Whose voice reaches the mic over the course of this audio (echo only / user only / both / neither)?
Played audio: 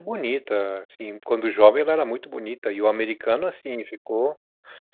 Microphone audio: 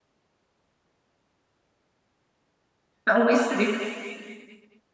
user only